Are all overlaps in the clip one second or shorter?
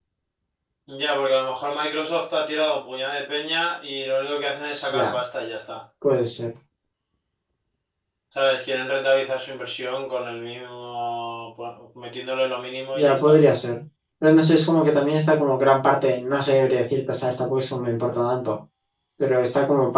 Yes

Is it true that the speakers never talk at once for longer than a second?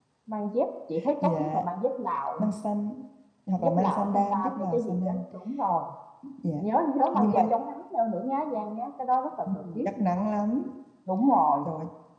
No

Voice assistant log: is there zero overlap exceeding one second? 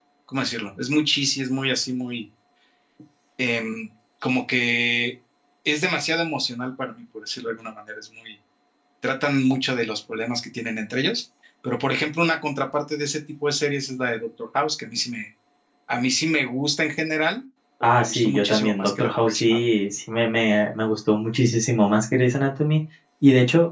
No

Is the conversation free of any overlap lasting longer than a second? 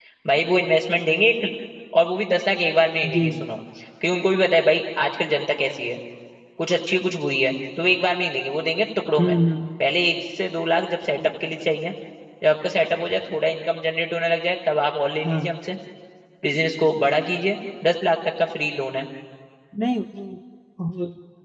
Yes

